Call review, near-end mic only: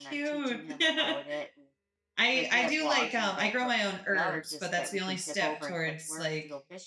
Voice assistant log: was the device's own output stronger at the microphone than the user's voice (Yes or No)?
No